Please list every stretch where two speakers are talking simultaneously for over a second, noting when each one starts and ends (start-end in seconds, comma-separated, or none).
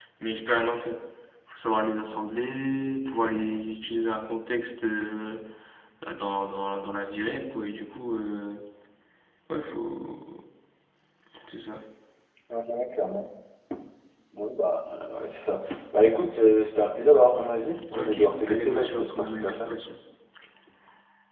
18.0-19.7